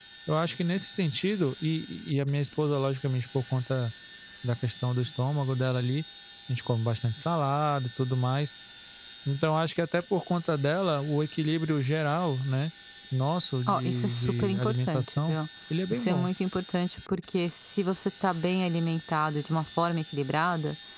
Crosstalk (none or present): present